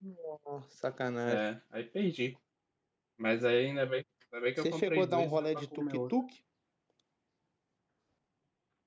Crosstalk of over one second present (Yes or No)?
Yes